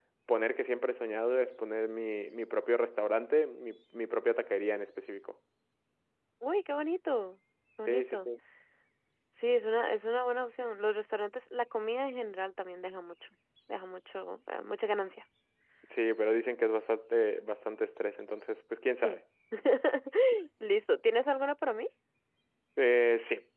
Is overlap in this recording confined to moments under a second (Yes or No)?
Yes